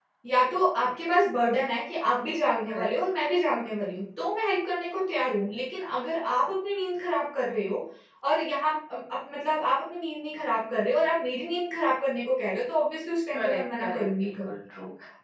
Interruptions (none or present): present